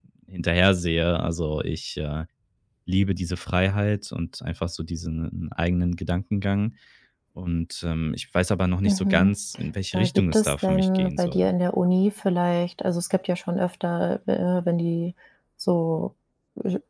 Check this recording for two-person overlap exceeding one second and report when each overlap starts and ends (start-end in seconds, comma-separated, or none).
9.9-11.5